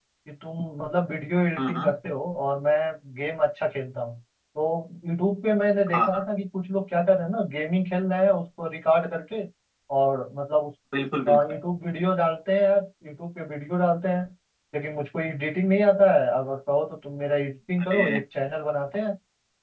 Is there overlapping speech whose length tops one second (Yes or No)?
No